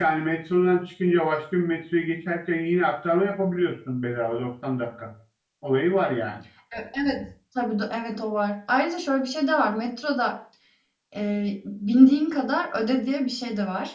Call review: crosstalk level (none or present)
none